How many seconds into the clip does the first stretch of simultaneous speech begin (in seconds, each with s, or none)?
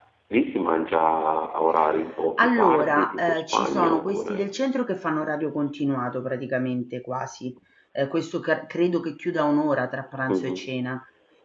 2.4 s